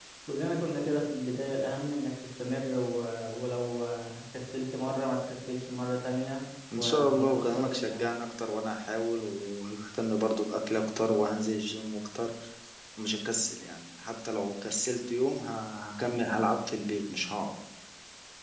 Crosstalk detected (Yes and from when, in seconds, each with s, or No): Yes, from 6.7 s